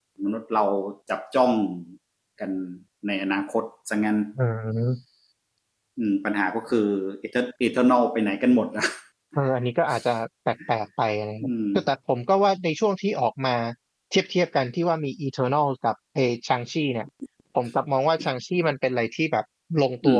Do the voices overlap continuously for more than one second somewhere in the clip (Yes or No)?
No